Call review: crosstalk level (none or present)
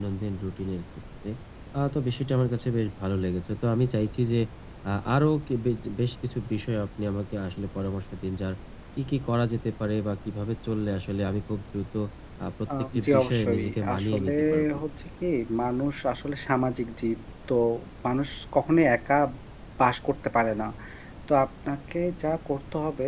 present